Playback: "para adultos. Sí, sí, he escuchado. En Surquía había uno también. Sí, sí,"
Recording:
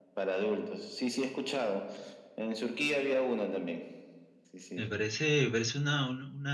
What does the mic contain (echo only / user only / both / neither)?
both